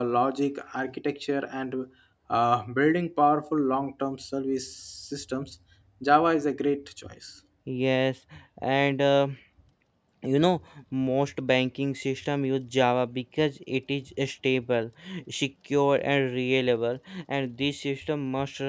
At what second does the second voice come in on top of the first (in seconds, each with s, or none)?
none